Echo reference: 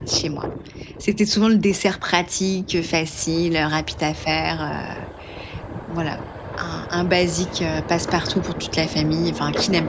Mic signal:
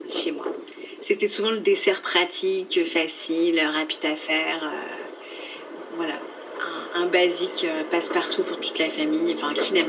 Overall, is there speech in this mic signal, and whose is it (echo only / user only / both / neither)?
echo only